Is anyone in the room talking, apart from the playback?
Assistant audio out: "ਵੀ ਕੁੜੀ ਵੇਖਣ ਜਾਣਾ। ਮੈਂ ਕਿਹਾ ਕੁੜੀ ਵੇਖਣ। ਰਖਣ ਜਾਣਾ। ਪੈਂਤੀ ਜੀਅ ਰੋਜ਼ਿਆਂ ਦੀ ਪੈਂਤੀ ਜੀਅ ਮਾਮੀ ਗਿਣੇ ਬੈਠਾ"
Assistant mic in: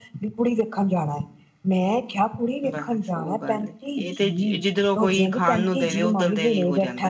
Yes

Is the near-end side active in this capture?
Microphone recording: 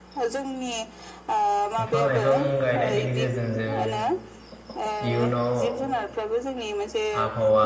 Yes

